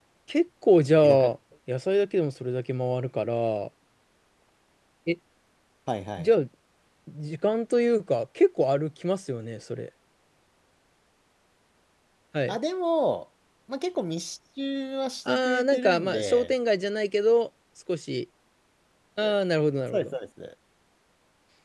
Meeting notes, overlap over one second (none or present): present